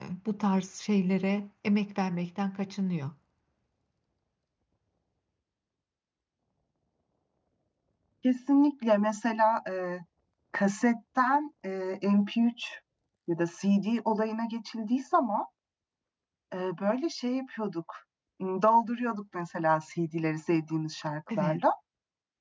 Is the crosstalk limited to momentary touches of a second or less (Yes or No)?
Yes